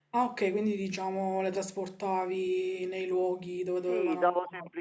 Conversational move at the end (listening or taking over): taking over